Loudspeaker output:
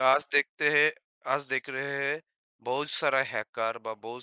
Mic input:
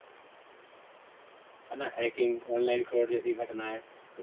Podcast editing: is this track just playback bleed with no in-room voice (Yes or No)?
No